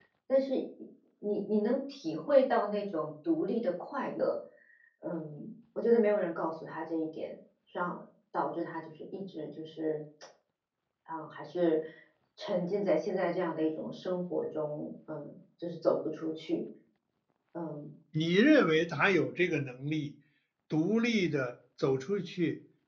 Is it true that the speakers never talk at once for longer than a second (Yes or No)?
Yes